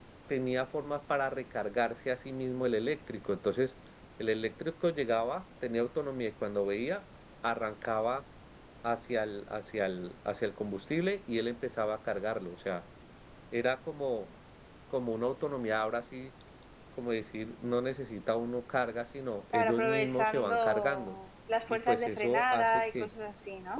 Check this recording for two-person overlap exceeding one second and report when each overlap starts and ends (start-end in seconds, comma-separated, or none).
19.5-21.1, 21.7-23.1